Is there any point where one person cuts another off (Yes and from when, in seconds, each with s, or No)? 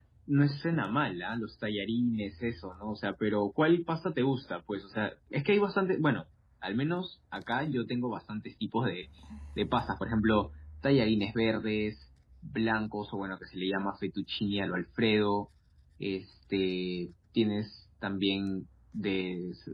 No